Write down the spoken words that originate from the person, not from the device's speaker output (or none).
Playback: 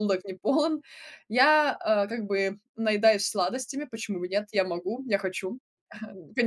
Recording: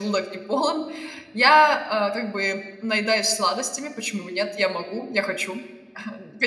none